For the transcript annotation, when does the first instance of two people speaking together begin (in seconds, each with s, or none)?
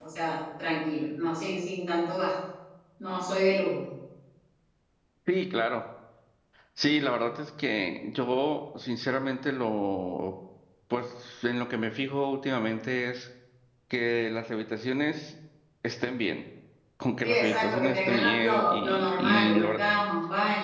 17.2 s